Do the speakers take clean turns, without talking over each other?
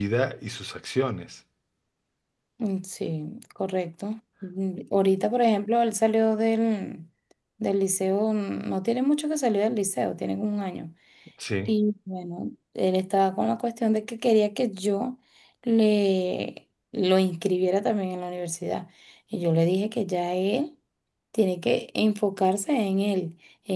Yes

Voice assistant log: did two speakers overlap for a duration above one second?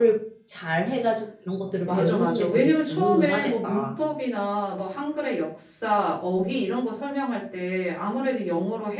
Yes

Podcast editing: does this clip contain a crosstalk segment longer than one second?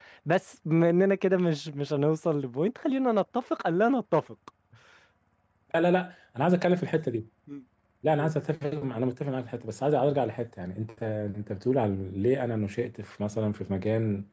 No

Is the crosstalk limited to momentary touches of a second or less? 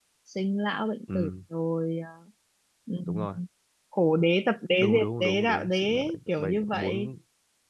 No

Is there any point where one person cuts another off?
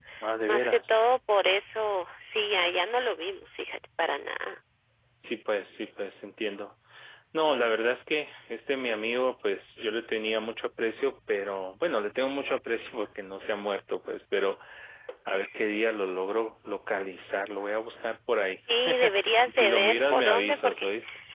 Yes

